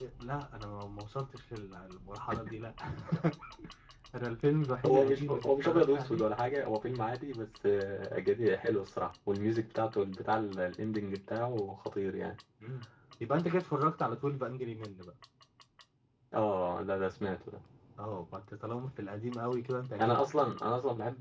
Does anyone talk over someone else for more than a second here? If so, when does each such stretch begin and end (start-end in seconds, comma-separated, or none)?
4.8-6.2